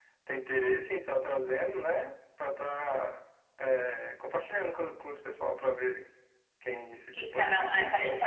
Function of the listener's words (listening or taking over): taking over